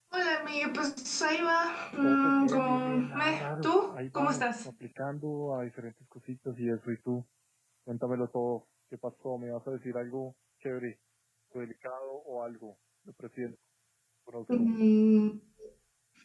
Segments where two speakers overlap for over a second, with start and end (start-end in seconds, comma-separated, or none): 2.0-4.6